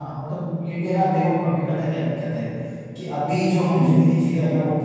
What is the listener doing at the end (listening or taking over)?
listening